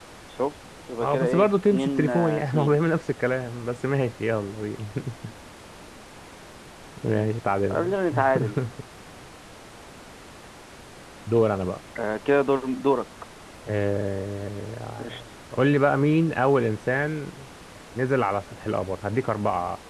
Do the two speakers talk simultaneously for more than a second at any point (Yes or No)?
Yes